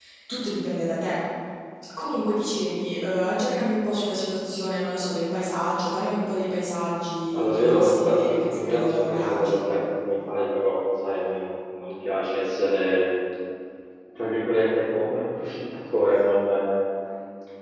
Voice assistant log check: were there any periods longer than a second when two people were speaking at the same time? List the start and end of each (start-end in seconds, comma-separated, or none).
7.3-9.6